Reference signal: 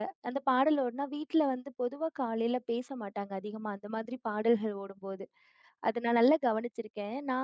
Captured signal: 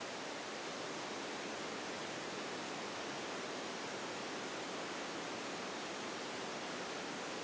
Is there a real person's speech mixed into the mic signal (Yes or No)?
No